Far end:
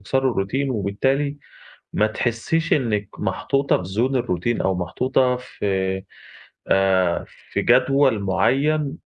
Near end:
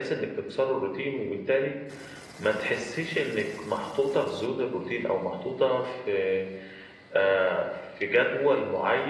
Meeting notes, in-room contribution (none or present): none